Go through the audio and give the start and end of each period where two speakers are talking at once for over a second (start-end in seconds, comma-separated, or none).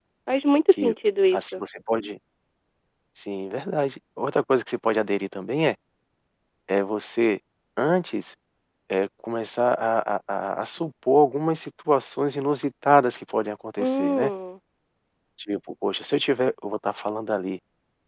none